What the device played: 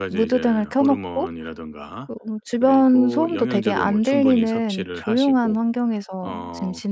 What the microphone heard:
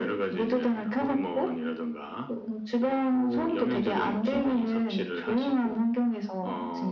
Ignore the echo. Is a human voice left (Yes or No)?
No